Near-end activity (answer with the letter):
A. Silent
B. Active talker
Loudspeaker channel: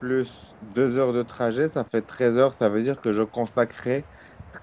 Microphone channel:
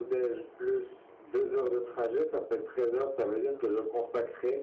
A